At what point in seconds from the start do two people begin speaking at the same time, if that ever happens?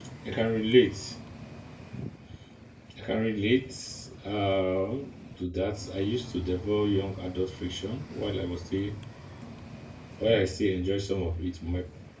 none

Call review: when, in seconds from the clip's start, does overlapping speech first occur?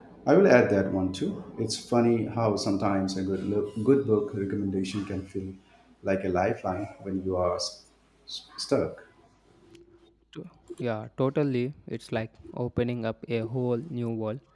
none

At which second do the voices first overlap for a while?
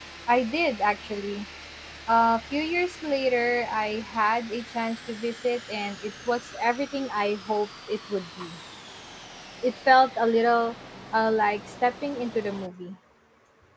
none

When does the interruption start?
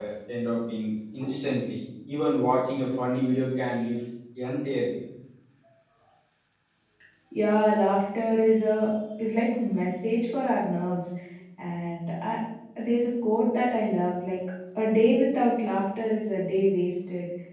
none

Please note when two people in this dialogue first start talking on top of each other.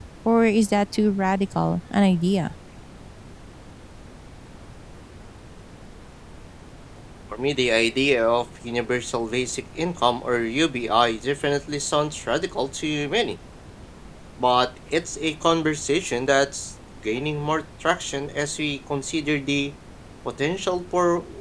none

